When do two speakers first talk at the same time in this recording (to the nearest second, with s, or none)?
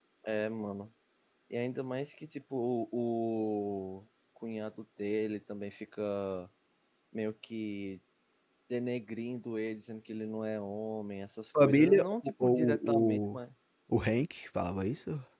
12 s